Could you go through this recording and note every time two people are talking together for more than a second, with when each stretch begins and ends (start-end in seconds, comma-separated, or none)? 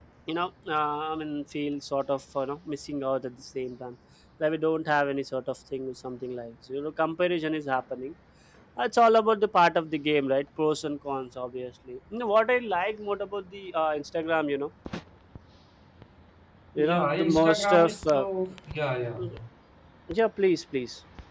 16.8-18.2